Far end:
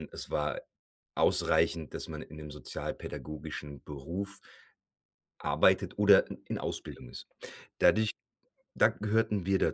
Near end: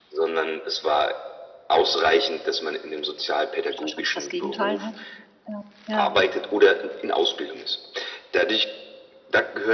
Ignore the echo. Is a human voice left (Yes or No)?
Yes